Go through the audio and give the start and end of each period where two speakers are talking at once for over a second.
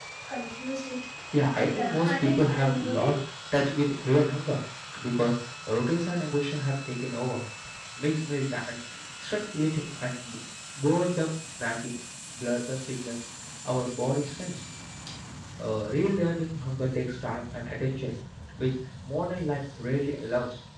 1.5-3.1

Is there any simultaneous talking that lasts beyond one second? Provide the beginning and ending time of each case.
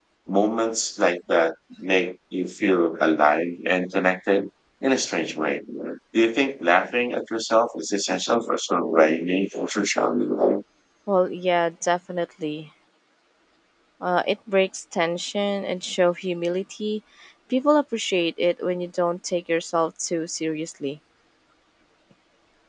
none

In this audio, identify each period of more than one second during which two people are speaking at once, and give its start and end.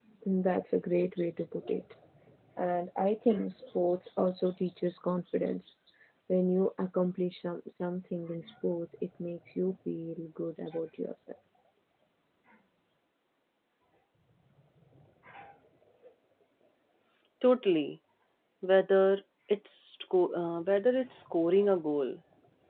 none

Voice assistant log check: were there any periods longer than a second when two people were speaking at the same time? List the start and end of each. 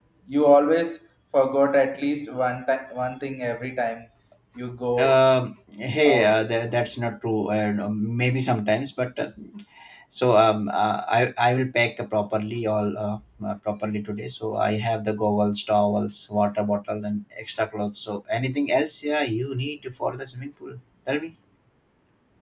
none

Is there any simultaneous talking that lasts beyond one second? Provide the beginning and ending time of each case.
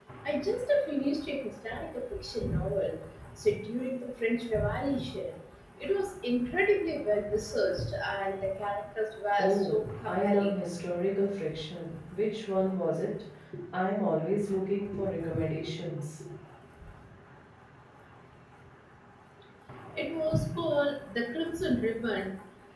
9.4-10.6

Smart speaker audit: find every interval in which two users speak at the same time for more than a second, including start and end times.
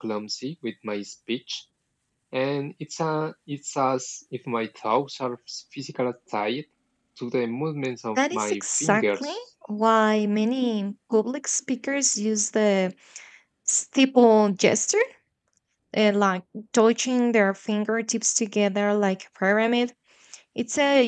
8.2-9.4

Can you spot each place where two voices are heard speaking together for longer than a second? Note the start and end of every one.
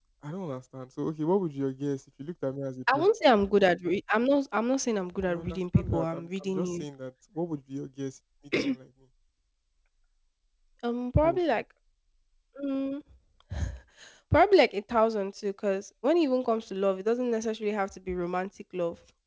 5.3-6.8

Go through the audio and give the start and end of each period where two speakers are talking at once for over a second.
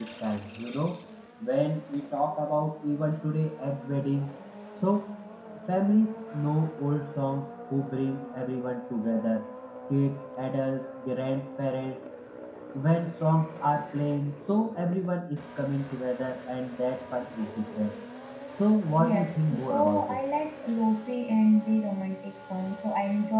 19.0-20.2

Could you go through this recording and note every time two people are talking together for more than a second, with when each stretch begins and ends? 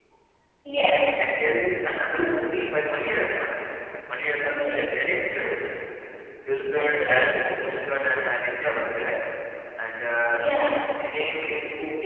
none

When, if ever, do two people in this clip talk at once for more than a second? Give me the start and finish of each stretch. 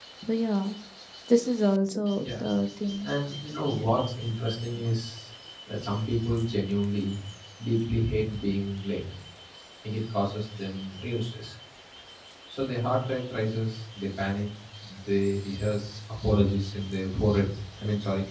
none

